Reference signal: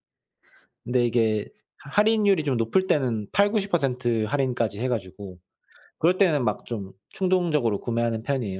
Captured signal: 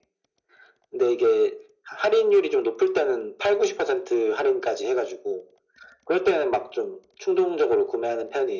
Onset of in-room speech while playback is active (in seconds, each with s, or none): none